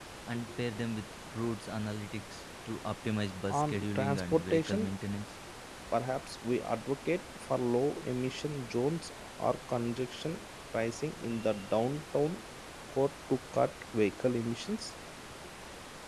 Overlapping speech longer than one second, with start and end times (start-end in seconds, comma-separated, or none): 3.5-4.9